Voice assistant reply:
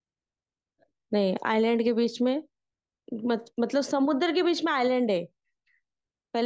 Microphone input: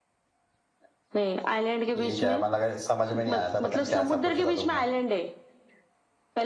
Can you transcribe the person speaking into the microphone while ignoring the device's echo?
ठीक है मतलब अगर समझ में नहीं आया था पता नहीं कैसा पूछा था तुमने

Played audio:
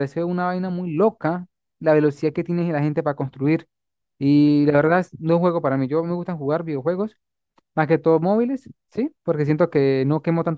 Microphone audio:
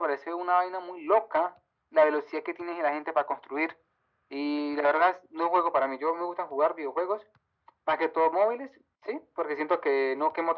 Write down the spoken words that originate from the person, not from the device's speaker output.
none

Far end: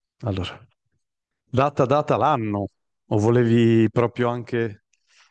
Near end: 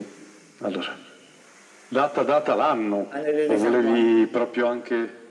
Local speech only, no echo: Anidride carbonica.

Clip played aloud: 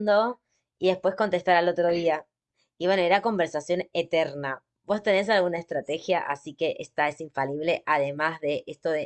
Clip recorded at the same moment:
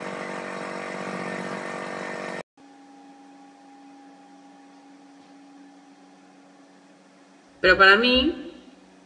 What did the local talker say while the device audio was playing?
Pero para mí,

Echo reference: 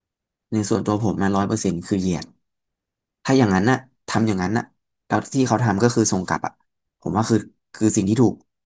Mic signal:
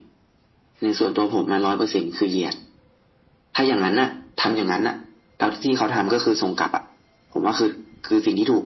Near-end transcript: none

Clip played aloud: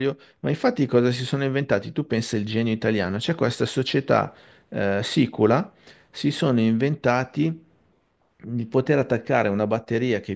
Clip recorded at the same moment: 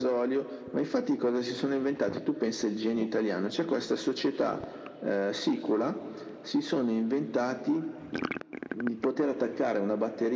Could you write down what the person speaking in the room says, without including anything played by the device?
none

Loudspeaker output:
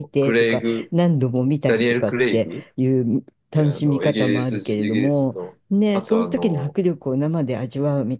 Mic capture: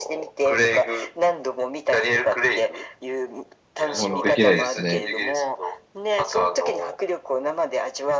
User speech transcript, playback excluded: もうできないですね。

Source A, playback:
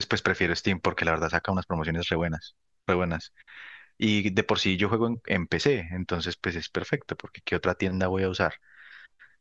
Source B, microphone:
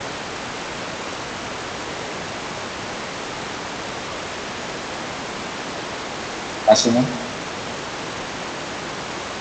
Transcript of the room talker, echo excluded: más o menos.

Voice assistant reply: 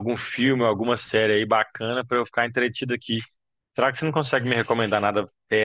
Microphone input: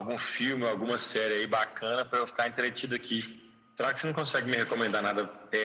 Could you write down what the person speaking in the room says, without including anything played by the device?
none

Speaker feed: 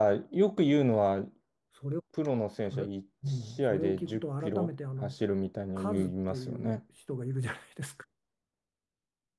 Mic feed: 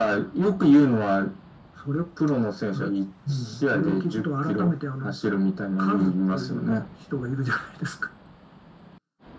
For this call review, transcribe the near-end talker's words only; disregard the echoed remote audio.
none

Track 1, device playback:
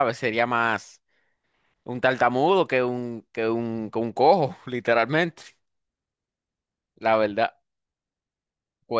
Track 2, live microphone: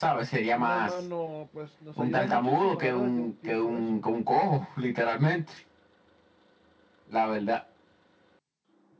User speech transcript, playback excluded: una mano, pues nos ayuda muchísimo, la verdad, yo pienso eso.

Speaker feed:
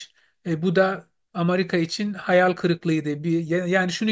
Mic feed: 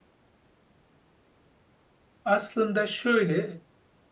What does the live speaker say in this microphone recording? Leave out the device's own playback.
Aslında şöyle

